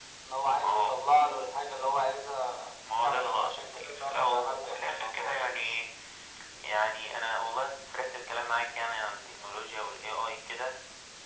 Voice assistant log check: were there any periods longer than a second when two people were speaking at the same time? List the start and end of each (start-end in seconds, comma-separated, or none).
3.0-5.6